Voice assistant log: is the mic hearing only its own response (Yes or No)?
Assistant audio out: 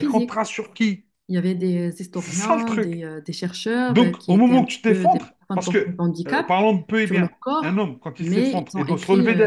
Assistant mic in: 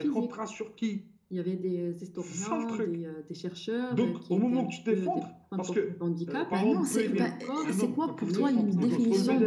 No